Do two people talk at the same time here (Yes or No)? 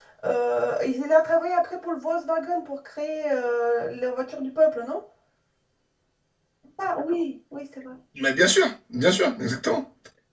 No